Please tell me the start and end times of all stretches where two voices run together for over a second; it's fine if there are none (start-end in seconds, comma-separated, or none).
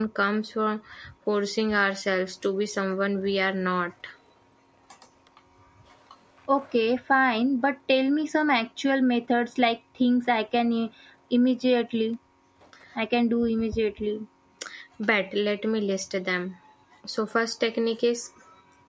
none